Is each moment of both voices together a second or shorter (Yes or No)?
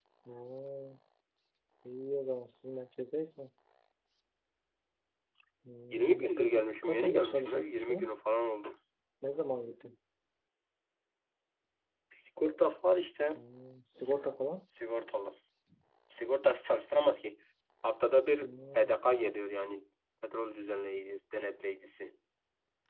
No